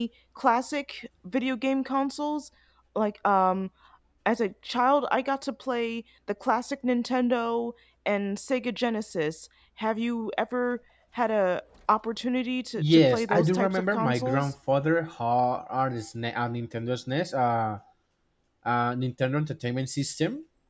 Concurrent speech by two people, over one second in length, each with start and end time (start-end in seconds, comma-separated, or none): 12.8-14.5